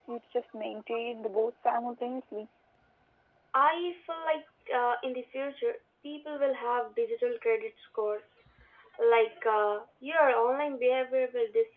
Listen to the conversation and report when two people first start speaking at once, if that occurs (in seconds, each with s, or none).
none